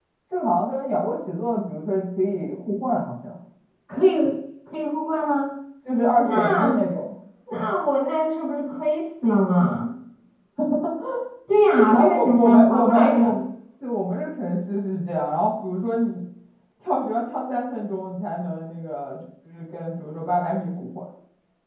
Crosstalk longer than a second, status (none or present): present